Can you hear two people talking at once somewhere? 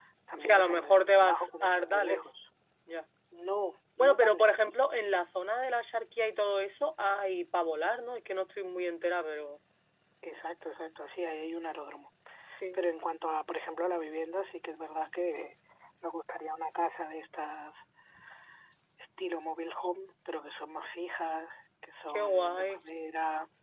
Yes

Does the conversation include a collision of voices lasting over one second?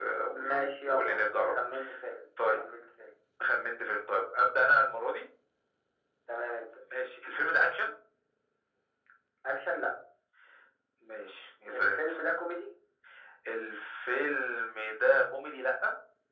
Yes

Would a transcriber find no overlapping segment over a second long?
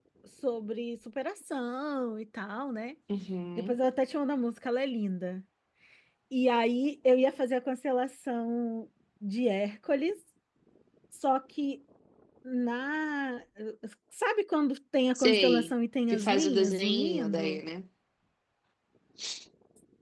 No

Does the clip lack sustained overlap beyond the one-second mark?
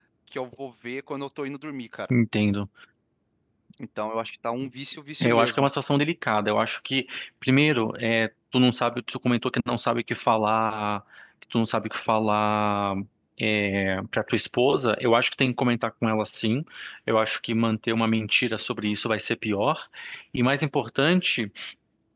Yes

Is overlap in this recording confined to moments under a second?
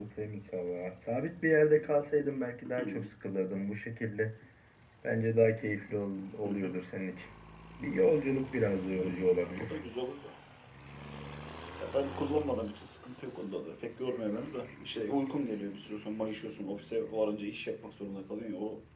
Yes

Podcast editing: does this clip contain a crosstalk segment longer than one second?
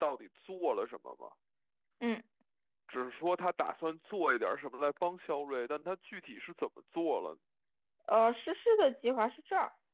No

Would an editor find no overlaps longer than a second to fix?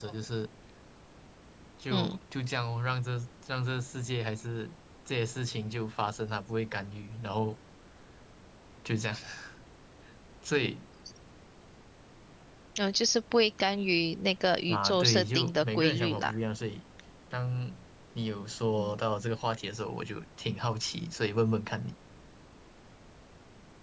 No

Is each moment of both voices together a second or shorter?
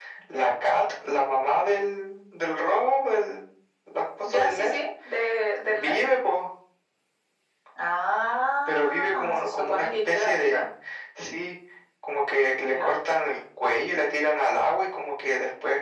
No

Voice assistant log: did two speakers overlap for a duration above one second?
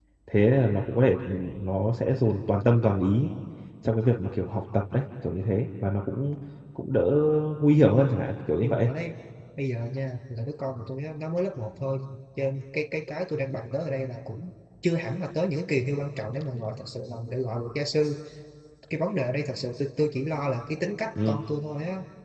No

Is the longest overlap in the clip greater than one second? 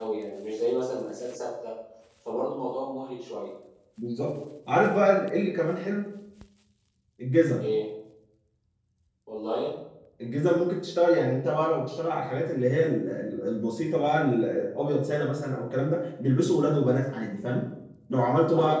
No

